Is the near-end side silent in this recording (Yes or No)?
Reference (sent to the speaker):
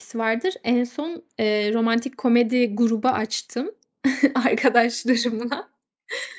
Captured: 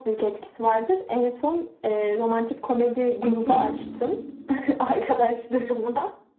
No